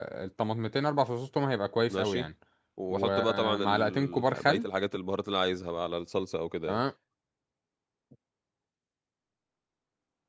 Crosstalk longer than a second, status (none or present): present